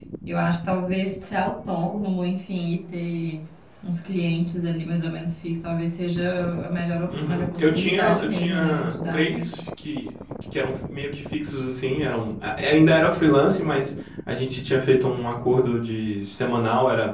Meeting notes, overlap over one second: present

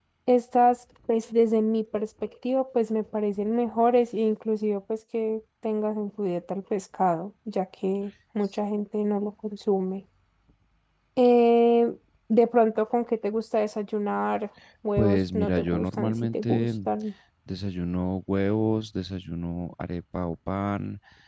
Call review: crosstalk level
present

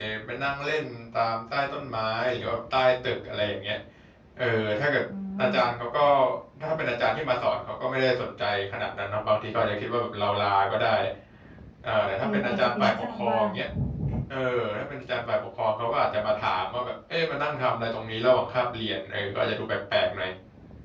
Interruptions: present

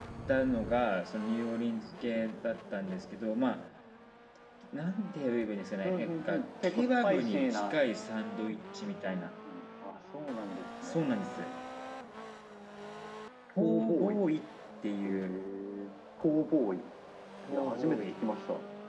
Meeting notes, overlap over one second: present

